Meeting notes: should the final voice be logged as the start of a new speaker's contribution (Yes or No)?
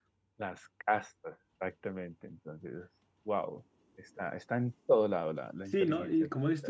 Yes